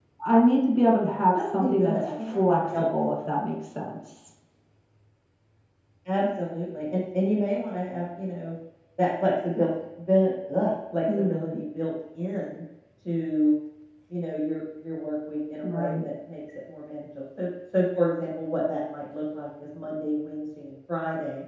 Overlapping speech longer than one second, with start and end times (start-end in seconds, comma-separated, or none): 1.4-3.1